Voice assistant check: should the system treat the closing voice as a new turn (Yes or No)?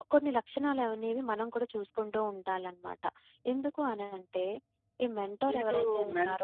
Yes